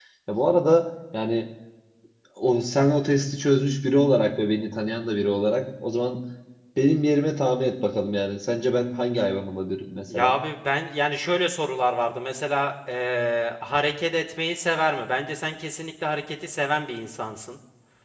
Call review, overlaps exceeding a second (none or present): none